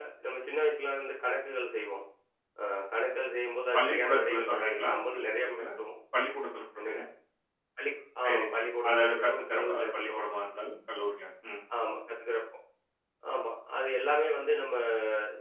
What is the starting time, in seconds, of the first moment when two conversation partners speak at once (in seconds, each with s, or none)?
3.7 s